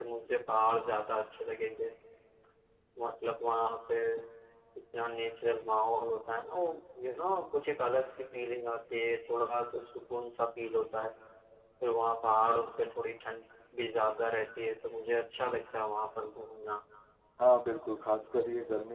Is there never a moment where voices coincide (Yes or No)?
Yes